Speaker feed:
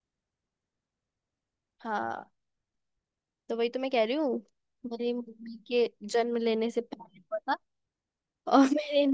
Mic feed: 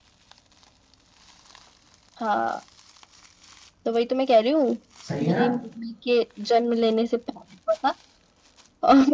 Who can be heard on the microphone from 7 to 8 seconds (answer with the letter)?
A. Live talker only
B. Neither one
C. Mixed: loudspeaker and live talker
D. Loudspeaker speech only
D